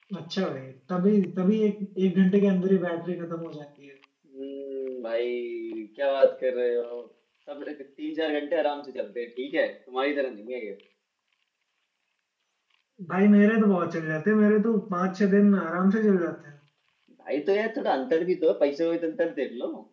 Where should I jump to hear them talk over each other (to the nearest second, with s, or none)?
none